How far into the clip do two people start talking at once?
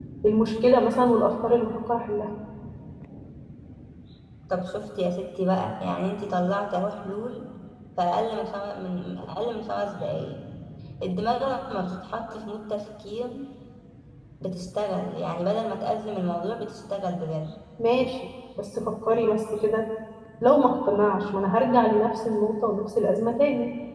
none

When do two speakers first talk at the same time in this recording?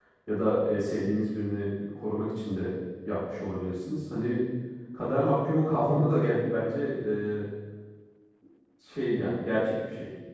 none

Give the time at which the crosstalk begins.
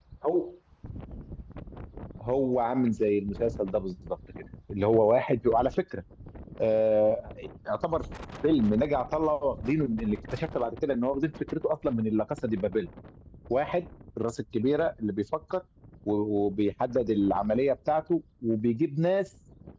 none

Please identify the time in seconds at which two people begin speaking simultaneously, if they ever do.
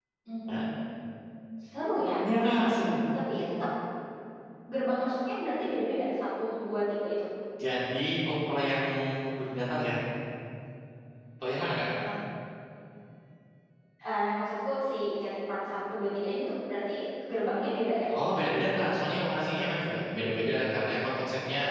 none

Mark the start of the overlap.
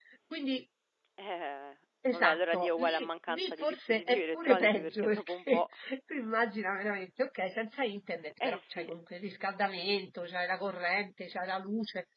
2 s

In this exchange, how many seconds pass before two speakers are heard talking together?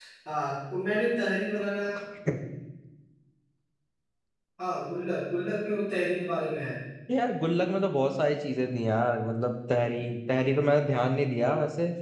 none

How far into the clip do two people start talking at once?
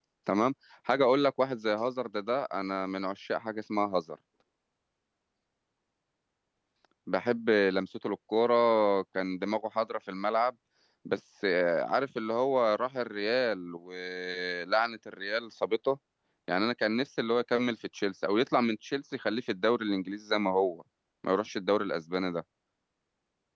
none

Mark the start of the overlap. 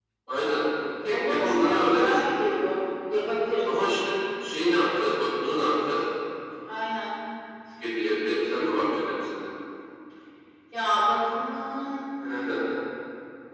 1 s

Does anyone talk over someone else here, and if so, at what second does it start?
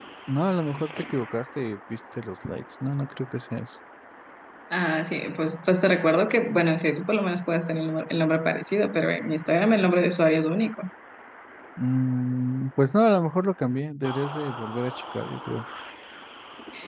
none

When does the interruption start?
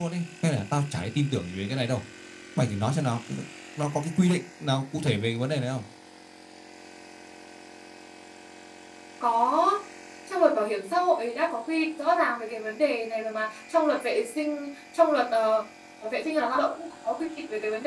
none

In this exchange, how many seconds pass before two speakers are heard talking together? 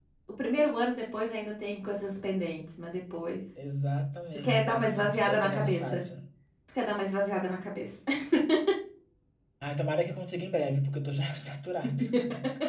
4 s

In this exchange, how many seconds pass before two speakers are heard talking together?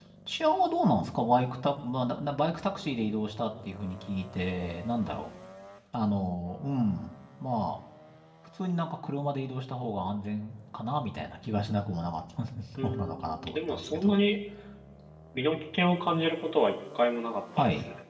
13 s

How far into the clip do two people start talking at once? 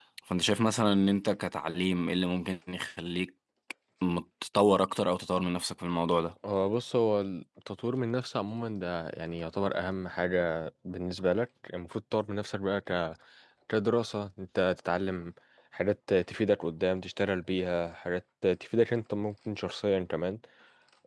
none

